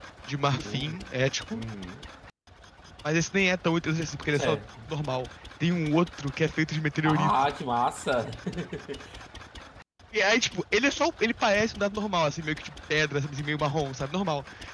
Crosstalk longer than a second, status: none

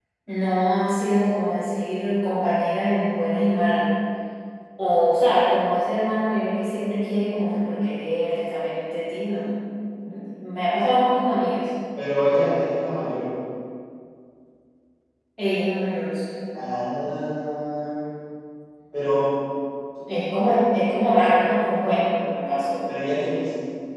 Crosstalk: none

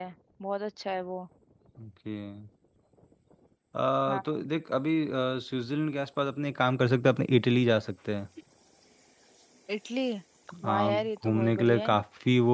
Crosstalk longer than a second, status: present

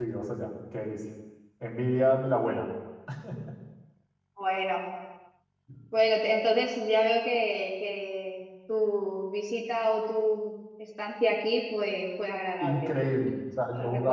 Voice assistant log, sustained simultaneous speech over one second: none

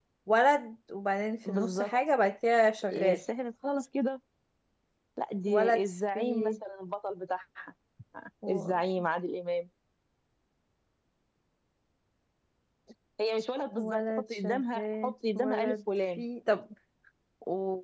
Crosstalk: present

